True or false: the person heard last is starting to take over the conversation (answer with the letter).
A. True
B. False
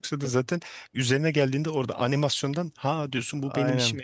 A